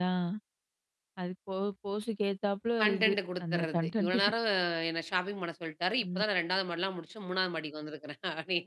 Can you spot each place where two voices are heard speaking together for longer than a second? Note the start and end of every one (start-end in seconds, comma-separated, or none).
2.8-4.2